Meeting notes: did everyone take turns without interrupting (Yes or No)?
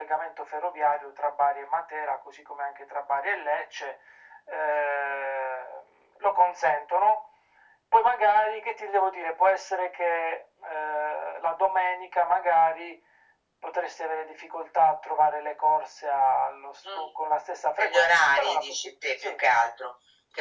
No